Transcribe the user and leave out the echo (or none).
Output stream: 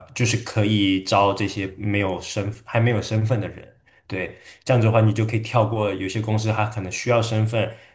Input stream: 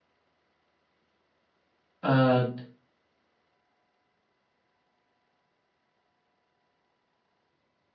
呃，